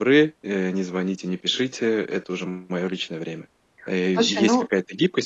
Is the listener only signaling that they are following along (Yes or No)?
Yes